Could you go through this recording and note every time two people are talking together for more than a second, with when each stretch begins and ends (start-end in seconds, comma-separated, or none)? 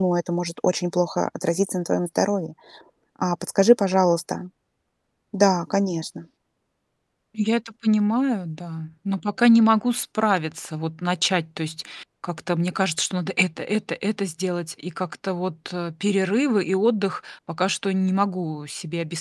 none